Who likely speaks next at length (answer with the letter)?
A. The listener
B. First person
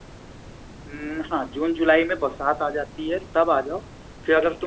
B